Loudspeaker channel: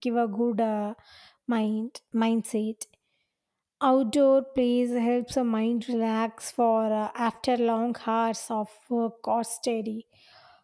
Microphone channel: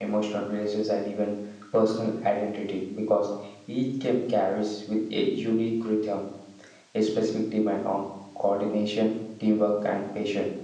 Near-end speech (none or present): present